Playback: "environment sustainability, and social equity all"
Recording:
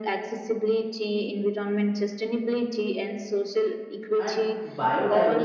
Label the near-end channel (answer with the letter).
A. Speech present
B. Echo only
A